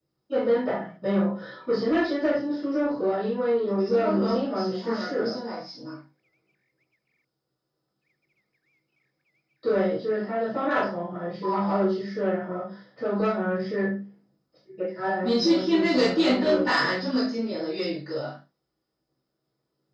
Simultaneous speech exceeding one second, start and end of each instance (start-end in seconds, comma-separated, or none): 3.9-5.3, 15.2-17.0